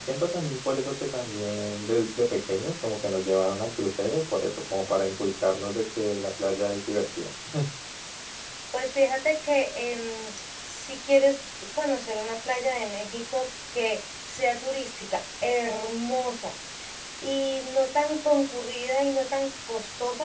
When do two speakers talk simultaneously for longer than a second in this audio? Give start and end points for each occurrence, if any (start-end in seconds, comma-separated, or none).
none